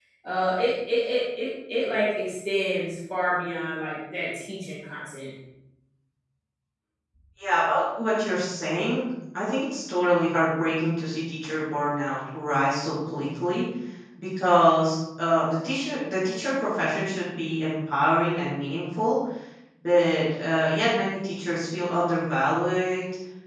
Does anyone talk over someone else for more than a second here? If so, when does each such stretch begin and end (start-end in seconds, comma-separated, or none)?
none